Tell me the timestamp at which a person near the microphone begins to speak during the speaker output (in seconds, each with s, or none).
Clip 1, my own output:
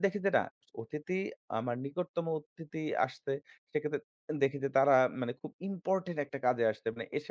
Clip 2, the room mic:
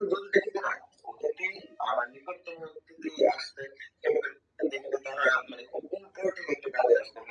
none